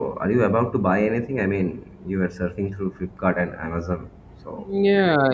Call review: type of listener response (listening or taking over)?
taking over